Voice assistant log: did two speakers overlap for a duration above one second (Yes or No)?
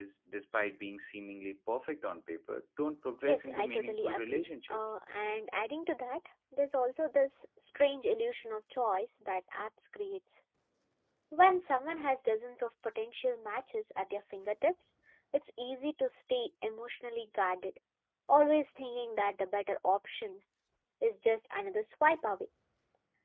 Yes